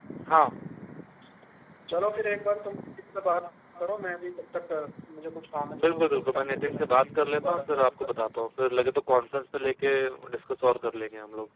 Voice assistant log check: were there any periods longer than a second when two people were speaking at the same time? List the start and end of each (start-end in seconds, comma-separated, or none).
5.8-8.4